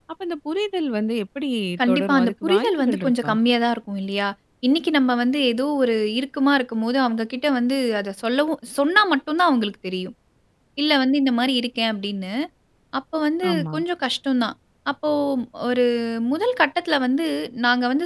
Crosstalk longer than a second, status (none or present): present